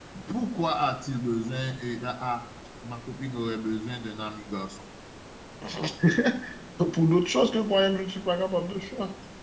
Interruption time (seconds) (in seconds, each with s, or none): none